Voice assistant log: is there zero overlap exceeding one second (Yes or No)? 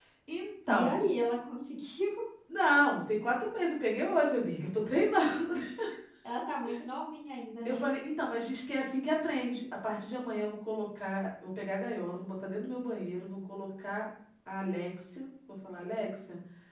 Yes